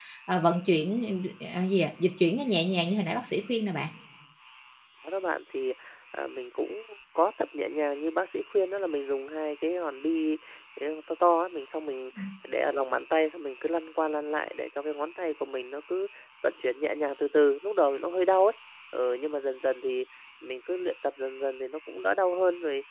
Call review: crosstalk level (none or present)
none